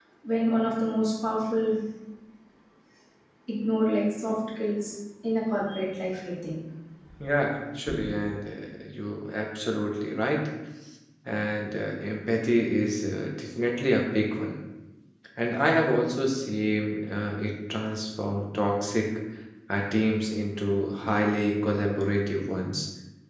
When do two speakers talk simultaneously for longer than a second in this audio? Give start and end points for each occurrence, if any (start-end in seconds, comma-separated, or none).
none